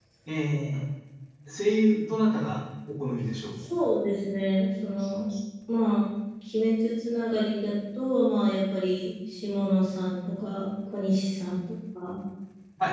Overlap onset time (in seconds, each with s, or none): none